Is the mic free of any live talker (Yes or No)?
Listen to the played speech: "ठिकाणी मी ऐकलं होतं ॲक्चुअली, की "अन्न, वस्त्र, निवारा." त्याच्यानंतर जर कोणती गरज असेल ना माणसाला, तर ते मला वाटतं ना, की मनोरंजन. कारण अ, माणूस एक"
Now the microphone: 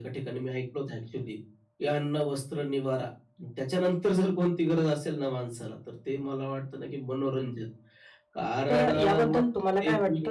No